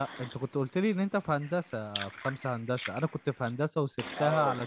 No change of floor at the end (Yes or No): Yes